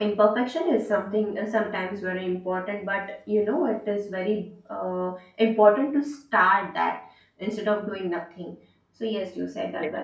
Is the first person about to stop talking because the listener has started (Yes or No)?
Yes